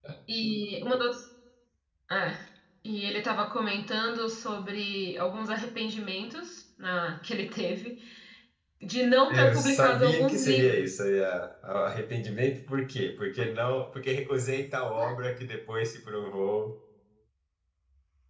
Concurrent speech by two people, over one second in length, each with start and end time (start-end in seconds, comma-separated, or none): 9.3-11.0